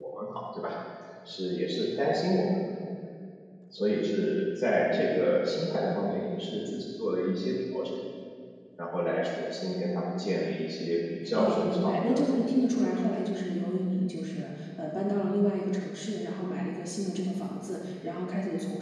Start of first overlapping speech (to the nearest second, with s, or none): 11 s